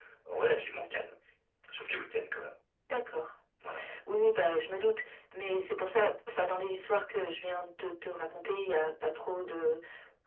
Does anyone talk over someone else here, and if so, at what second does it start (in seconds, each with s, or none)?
none